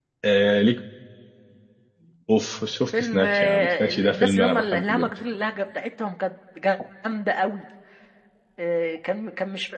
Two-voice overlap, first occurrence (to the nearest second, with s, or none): 3 s